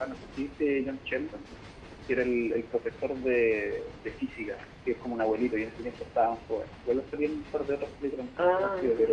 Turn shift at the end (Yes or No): Yes